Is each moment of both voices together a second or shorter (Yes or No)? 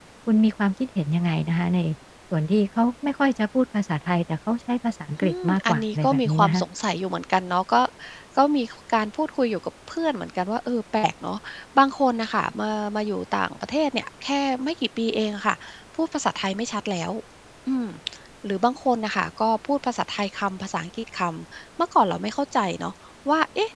No